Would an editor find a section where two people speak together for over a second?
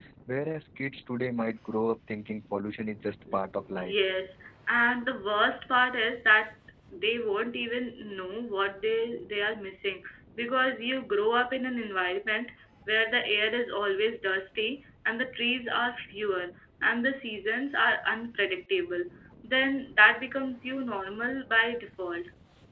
No

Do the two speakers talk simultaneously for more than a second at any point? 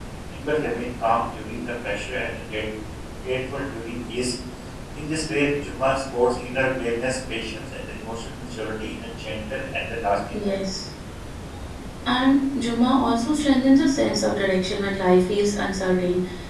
No

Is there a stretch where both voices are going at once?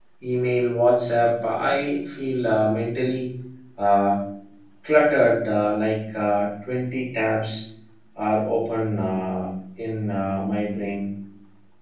No

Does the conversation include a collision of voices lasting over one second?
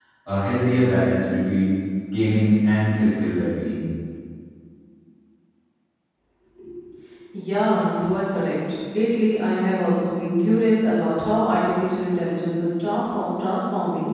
No

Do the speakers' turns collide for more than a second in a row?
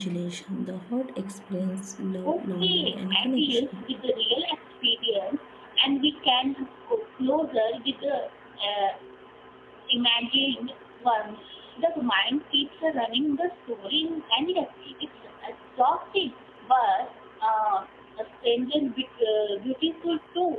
Yes, from 2.2 s

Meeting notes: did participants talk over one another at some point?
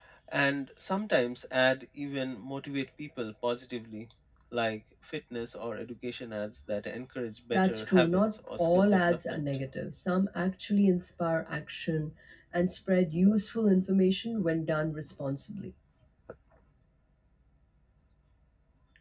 Yes, from 7.5 s

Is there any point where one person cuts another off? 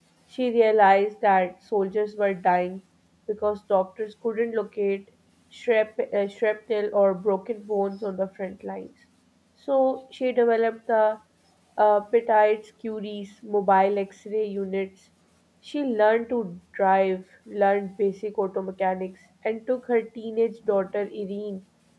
No

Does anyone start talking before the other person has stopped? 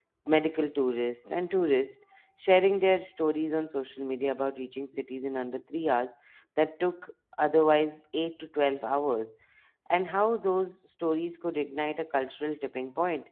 No

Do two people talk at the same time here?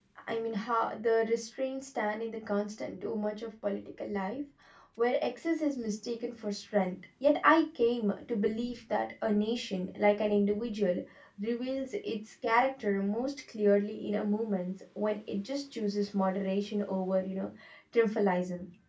No

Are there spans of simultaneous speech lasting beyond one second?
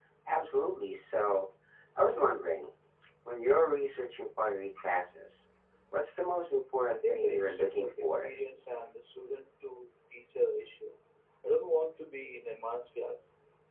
Yes, from 7.0 s

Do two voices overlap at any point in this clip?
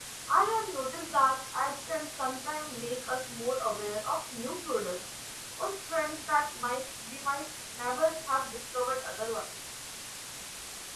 No

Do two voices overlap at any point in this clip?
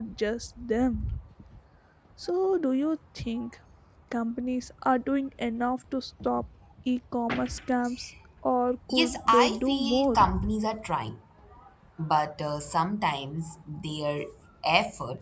Yes, from 8.9 s

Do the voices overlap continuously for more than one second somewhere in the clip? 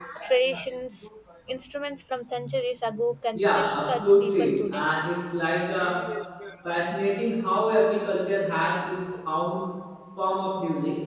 Yes, from 3.3 s

